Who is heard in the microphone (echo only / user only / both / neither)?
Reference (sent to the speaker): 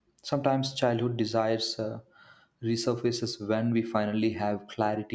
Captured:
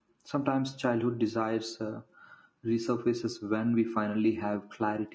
echo only